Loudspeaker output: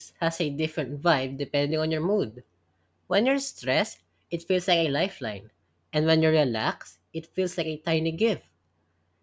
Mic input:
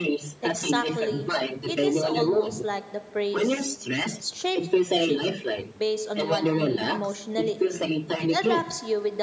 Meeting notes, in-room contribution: present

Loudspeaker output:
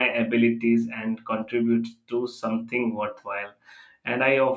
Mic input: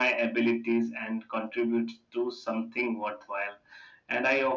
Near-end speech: none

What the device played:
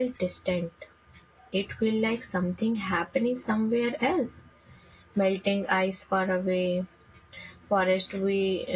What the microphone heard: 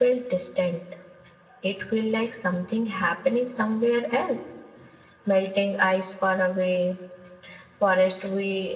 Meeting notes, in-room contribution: none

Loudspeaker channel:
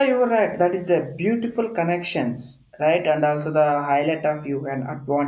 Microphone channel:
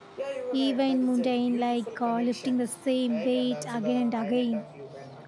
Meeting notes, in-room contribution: present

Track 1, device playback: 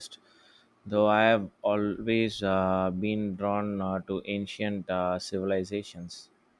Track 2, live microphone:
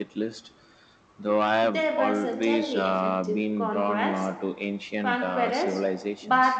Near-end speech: present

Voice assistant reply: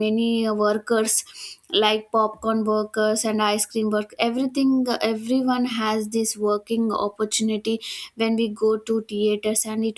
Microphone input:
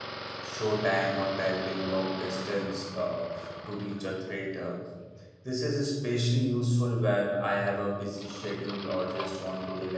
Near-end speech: present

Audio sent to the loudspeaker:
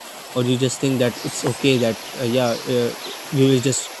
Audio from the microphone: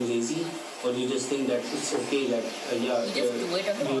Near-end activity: present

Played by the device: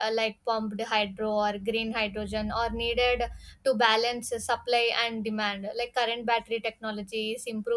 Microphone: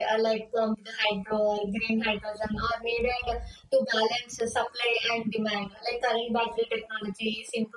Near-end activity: none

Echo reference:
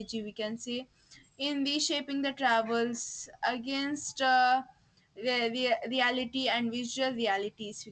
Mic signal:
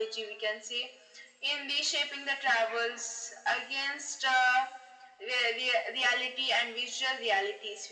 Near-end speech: none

